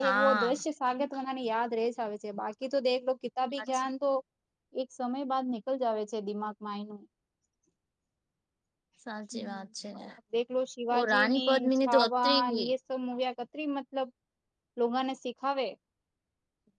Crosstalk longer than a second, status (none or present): present